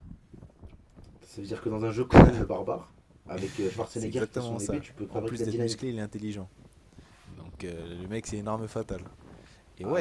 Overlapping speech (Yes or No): Yes